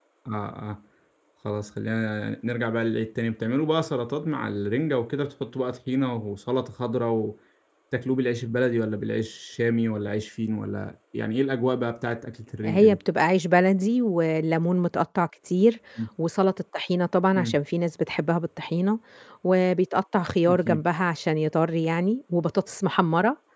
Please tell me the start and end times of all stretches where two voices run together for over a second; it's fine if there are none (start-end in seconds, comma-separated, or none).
none